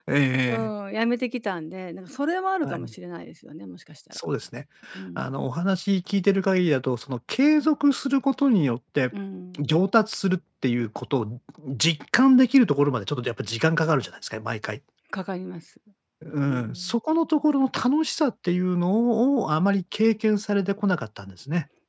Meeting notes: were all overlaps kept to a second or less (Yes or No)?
Yes